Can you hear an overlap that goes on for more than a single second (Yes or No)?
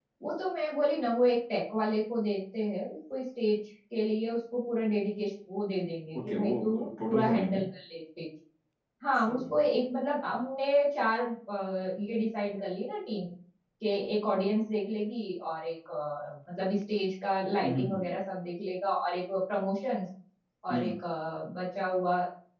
Yes